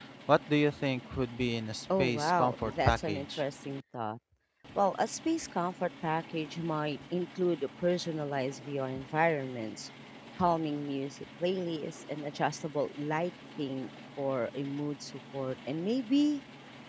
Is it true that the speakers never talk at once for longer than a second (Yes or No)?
No